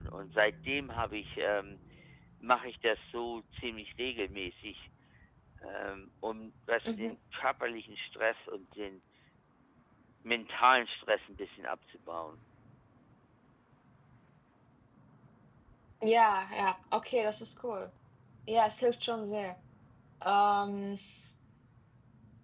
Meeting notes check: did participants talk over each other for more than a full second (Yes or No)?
No